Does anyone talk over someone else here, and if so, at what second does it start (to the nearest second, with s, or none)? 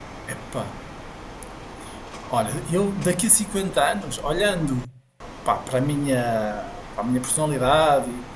none